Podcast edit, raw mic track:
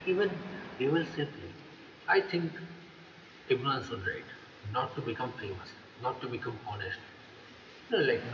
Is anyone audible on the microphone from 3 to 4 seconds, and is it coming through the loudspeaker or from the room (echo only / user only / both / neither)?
echo only